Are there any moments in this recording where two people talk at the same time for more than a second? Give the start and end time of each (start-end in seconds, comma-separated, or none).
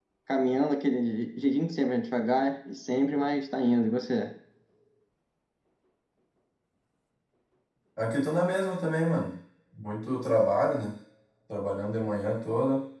none